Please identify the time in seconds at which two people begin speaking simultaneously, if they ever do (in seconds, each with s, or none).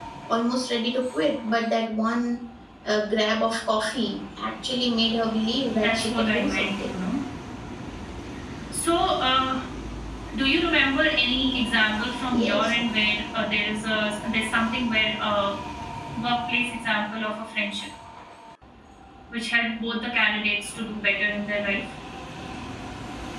5.7 s